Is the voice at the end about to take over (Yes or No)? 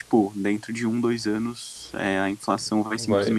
Yes